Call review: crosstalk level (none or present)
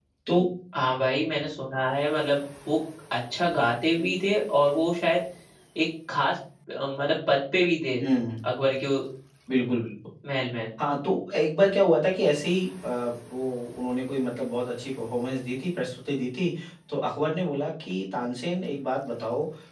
none